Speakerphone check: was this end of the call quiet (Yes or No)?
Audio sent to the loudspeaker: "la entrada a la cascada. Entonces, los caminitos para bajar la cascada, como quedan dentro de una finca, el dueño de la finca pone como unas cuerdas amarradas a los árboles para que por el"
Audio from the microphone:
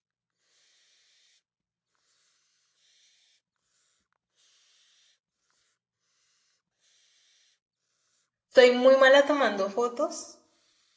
No